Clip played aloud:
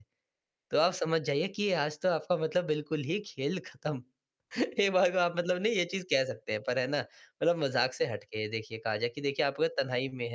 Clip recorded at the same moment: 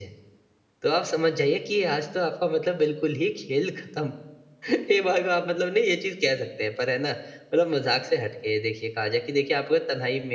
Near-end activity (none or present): none